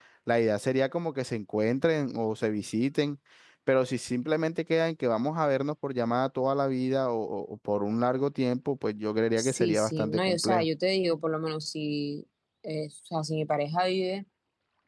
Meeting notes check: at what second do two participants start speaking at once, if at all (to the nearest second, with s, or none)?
9 s